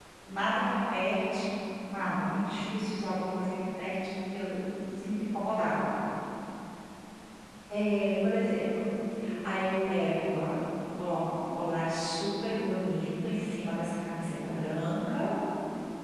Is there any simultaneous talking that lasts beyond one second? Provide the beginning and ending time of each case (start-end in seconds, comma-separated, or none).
none